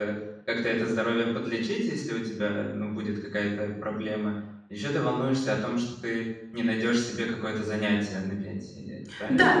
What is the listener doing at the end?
taking over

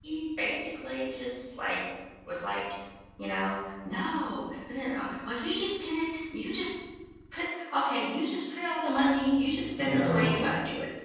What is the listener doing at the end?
listening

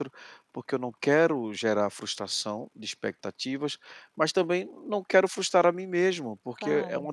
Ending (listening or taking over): listening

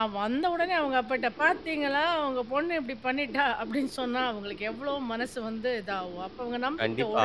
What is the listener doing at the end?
taking over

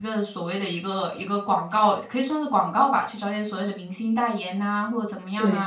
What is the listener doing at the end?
listening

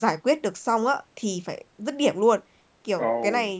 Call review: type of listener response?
listening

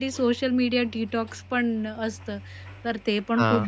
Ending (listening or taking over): listening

